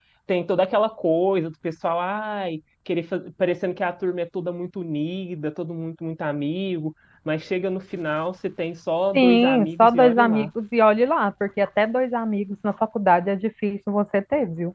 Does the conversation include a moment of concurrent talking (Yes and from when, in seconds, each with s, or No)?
Yes, from 9.1 s